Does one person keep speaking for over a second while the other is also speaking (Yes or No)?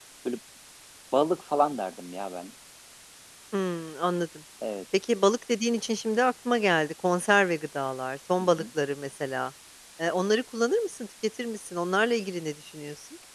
No